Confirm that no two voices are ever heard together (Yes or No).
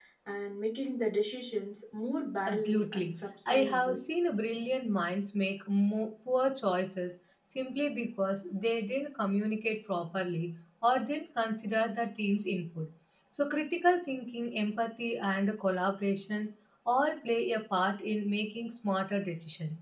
No